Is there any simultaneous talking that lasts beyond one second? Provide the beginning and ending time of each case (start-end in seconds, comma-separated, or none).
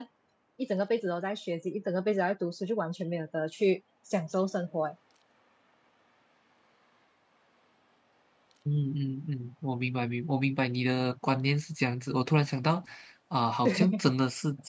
none